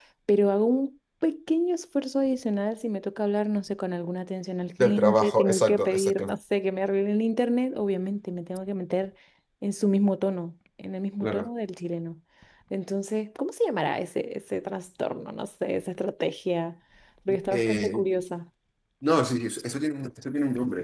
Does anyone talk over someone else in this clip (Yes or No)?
Yes